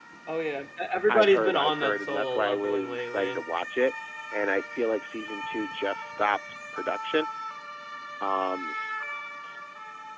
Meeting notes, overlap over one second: present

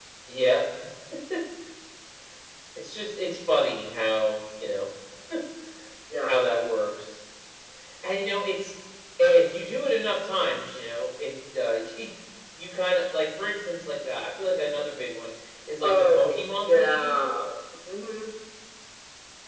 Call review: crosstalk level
present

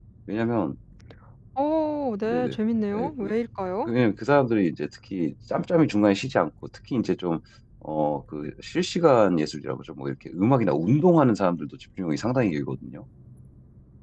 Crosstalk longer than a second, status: none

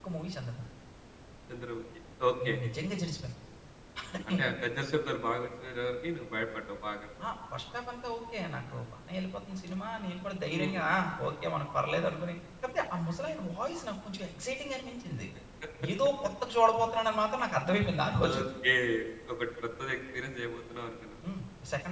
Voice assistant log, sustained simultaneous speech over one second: none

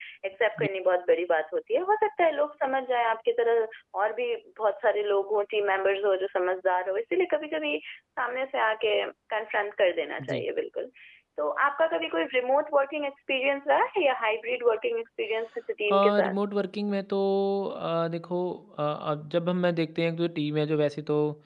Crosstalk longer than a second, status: none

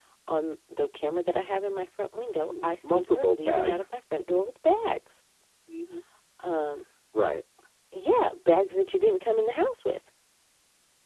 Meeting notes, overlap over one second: present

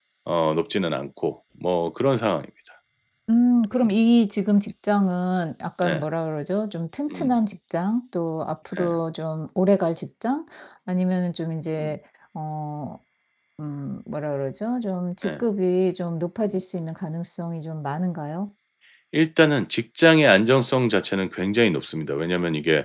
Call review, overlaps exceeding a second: none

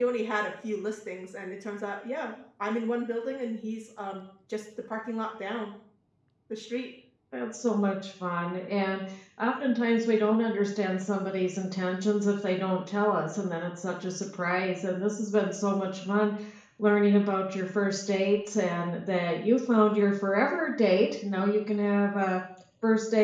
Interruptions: none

